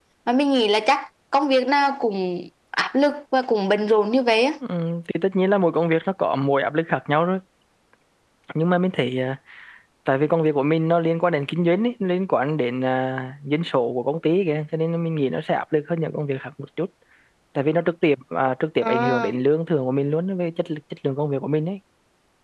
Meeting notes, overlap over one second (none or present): none